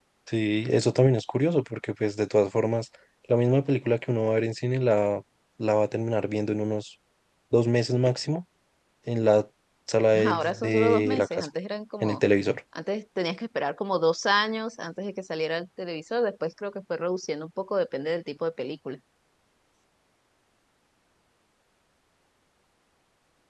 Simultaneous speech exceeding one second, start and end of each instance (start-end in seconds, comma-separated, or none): 10.3-11.5